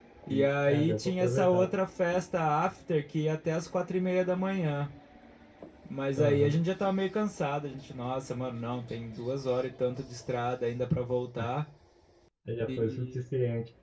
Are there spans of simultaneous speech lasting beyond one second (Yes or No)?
Yes